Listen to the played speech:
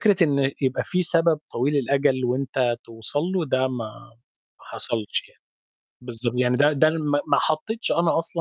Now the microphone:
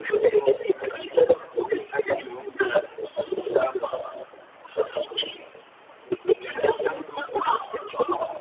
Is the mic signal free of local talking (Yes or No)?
Yes